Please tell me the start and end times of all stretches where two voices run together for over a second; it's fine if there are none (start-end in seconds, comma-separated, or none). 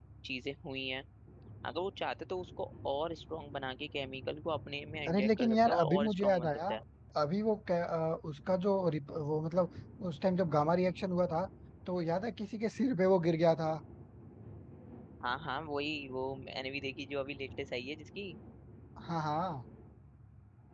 5.1-6.6